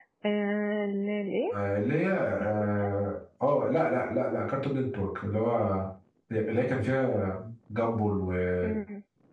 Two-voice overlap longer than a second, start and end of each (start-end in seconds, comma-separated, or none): none